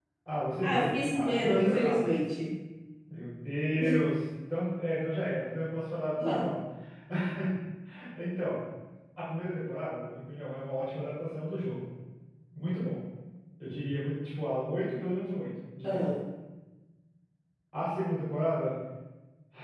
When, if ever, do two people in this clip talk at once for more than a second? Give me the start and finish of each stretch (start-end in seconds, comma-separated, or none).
0.6-2.1